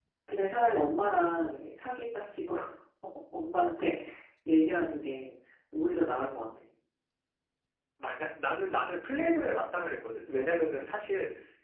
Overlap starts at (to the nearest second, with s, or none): none